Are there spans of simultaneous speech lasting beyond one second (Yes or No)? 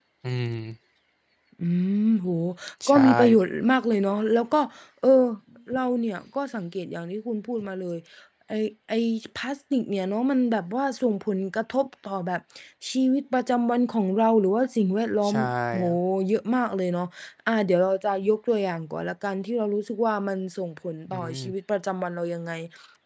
No